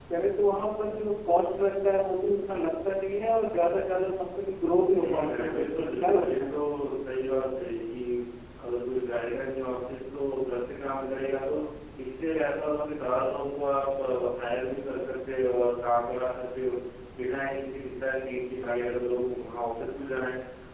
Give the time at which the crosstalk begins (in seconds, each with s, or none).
5.0 s